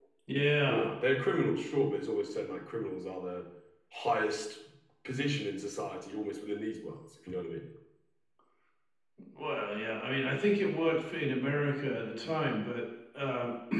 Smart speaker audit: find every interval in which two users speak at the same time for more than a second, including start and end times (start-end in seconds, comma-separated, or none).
none